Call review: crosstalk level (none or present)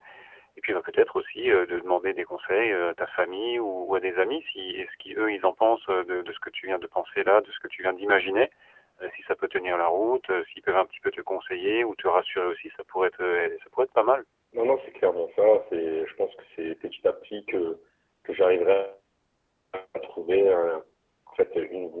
none